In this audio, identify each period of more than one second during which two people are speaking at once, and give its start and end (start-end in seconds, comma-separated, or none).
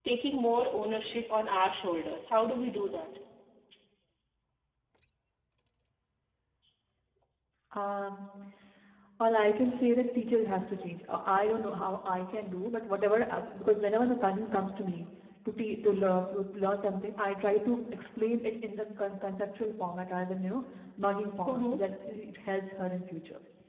none